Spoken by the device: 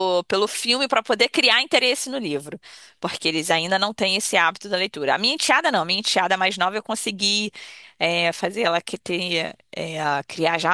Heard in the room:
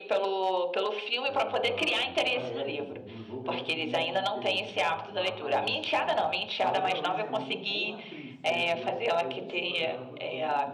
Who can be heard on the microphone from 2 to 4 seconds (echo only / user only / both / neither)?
both